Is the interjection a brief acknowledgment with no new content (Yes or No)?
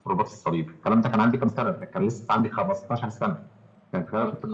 Yes